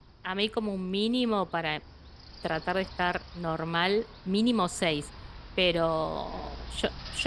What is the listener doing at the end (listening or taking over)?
listening